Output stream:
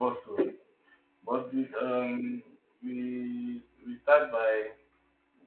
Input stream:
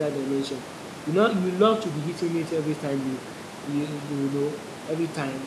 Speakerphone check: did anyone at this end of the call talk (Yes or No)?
Yes